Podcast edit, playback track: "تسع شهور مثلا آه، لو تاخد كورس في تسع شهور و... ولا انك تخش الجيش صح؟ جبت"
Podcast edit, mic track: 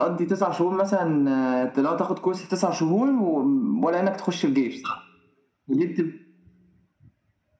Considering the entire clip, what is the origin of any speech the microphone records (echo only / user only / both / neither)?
echo only